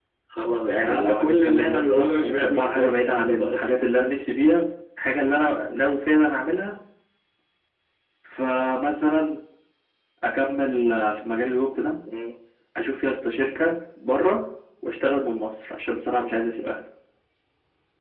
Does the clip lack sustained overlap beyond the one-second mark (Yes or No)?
No